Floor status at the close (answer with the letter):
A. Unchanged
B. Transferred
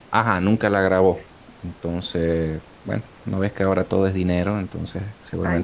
A